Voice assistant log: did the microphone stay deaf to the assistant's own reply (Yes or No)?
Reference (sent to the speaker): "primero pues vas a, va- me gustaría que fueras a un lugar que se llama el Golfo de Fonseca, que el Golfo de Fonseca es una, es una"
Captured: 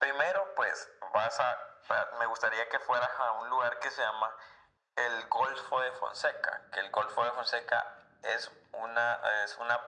No